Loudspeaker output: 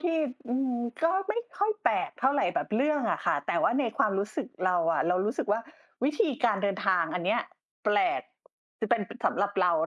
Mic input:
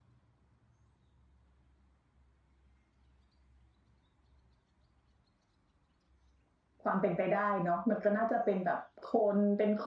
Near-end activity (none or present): present